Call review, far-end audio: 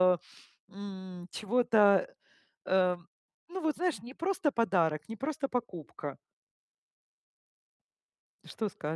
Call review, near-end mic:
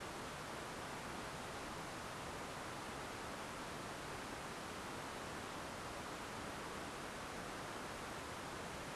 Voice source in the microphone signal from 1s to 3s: neither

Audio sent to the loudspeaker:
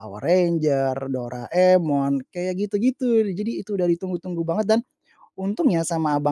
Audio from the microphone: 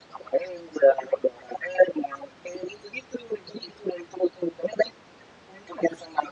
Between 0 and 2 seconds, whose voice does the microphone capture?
echo only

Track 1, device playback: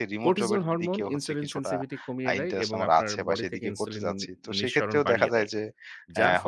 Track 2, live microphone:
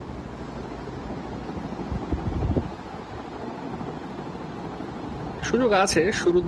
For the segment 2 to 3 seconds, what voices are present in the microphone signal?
neither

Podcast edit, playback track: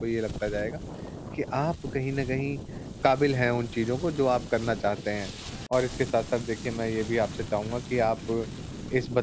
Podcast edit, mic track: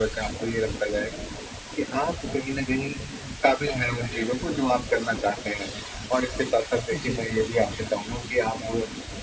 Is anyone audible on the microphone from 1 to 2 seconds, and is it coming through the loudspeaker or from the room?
echo only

